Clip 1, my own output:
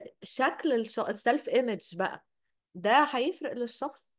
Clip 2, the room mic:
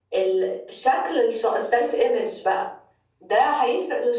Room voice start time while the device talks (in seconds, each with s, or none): none